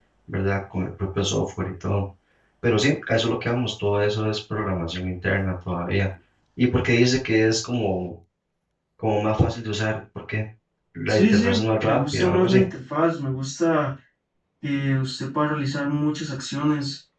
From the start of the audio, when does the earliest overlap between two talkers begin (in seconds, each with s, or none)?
11.1 s